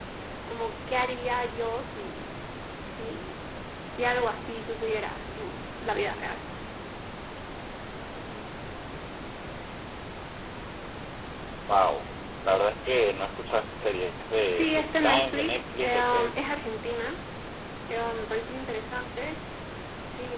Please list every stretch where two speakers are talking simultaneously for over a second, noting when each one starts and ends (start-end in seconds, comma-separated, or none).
14.5-16.4